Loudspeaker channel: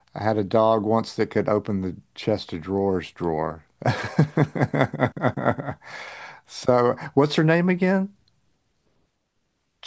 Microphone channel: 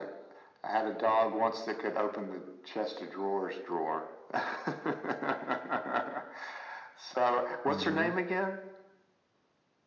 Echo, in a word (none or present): present